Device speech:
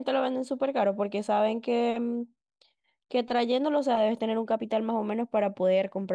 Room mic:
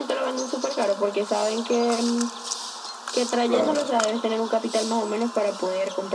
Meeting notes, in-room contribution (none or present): present